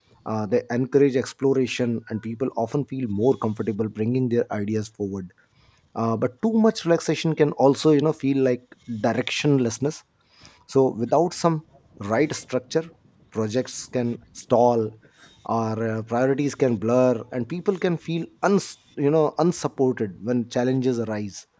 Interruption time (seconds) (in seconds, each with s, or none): none